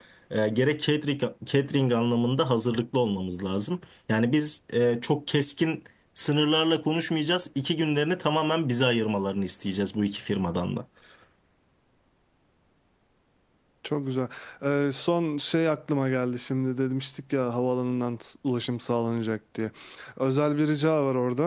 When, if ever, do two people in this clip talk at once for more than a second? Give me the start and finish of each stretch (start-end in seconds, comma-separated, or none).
none